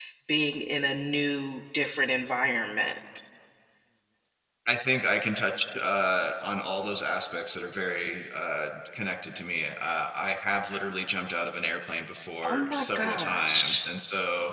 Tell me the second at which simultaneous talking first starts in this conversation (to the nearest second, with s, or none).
12 s